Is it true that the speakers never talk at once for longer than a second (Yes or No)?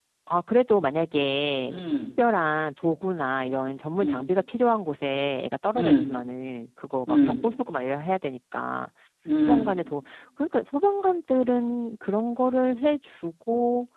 Yes